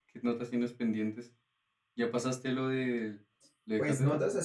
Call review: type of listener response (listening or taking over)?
taking over